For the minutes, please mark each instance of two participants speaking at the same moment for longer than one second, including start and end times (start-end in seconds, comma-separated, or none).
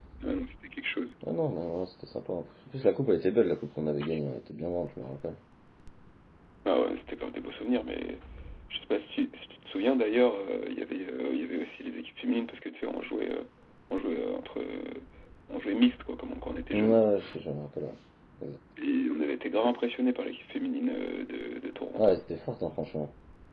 none